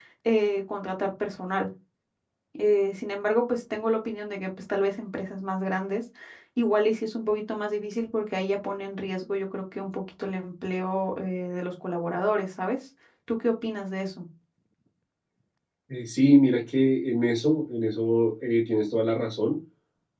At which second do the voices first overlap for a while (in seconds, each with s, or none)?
none